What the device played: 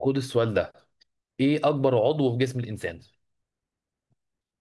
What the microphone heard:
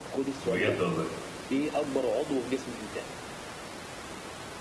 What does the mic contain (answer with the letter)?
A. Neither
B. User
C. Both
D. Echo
C